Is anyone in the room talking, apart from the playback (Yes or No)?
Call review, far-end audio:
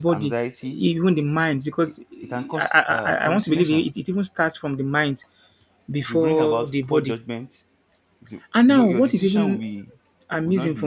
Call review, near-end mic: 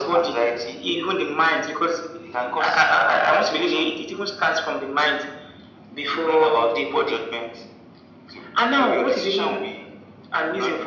No